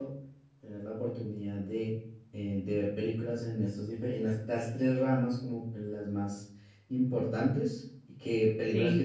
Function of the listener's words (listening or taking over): listening